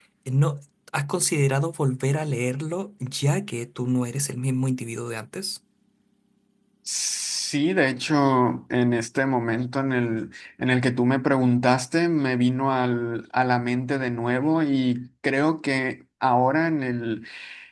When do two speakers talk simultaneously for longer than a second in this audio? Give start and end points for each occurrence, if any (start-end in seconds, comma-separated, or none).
none